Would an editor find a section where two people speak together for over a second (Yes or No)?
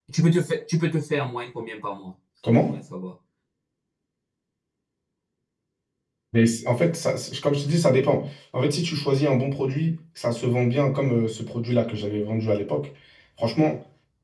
No